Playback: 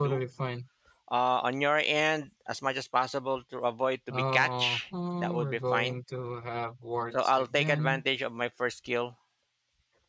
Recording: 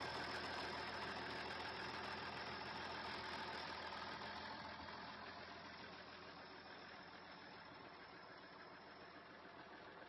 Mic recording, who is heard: neither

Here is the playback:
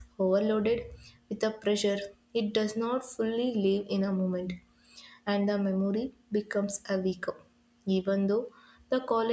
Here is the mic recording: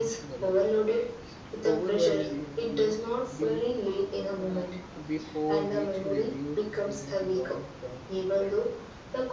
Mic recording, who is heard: both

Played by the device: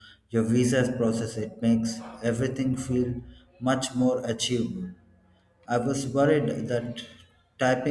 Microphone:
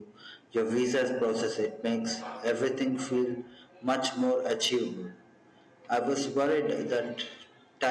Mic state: echo only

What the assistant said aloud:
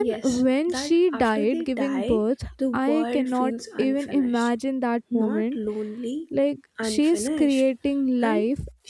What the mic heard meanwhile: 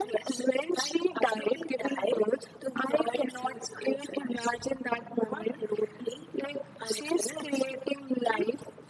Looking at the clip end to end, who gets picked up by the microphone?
echo only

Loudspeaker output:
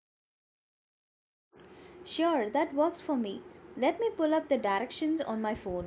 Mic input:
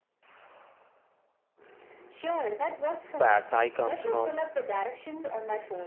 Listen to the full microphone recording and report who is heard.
both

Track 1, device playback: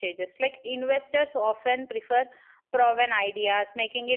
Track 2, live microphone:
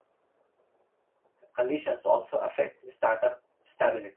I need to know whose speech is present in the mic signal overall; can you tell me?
user only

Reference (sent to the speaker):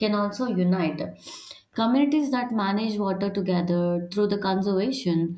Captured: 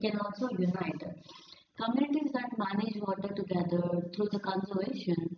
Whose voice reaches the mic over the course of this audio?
echo only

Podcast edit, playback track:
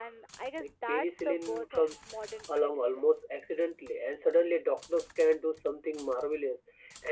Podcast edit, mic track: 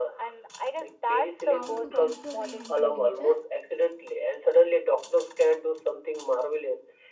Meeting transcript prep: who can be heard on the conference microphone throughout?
both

